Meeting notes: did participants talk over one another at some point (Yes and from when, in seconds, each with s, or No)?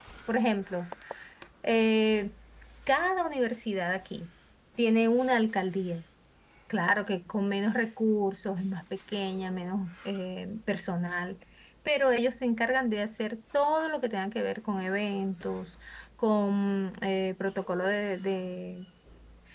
No